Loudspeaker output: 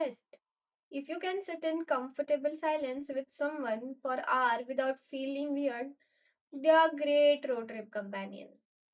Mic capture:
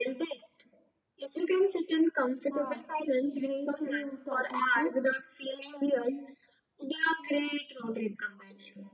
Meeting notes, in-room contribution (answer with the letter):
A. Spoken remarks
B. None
A